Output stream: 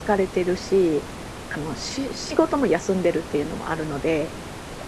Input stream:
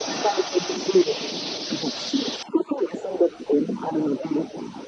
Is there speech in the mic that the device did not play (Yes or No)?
No